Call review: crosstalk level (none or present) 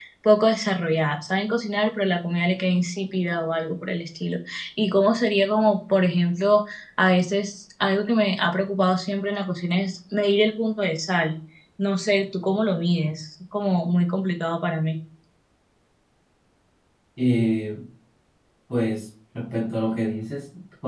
none